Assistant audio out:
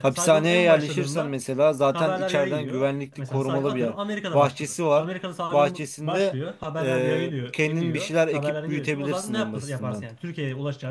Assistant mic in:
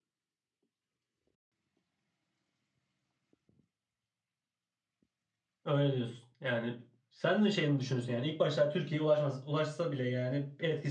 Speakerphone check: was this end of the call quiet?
No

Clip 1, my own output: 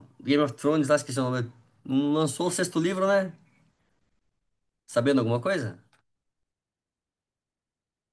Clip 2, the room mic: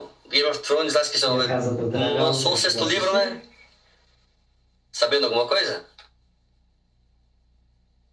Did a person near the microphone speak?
Yes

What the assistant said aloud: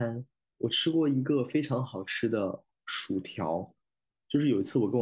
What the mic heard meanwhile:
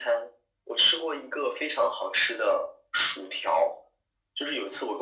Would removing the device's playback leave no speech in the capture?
Yes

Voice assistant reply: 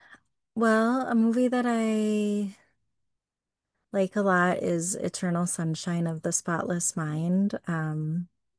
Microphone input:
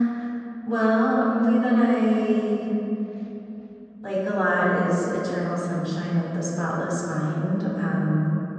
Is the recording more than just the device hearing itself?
No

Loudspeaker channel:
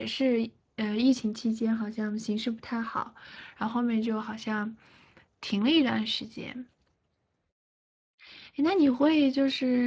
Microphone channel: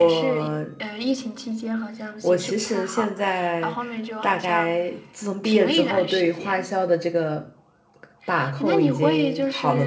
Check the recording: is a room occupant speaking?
Yes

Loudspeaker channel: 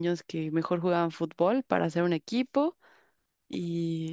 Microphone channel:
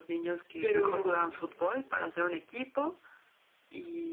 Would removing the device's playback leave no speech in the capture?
No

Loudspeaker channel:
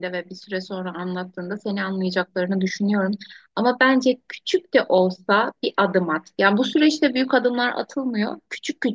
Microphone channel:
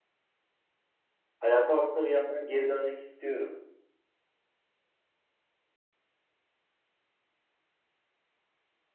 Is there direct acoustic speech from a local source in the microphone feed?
Yes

